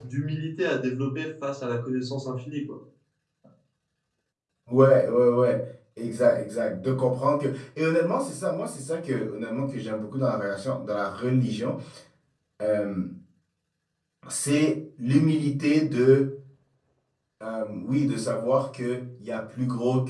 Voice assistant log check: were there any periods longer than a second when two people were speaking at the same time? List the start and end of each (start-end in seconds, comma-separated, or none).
none